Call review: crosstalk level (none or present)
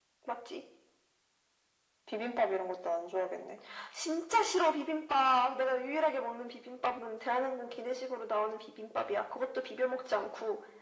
none